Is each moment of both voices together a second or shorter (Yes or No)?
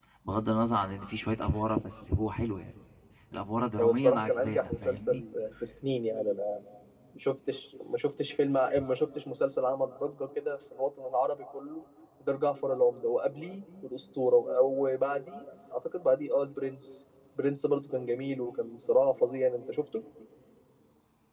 No